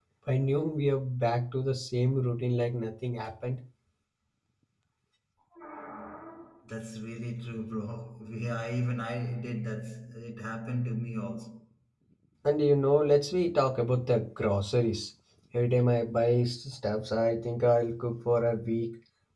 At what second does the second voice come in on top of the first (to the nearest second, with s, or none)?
none